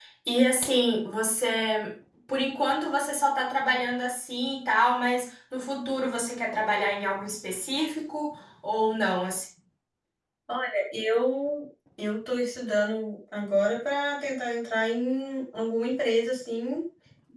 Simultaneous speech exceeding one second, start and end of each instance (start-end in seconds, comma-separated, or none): none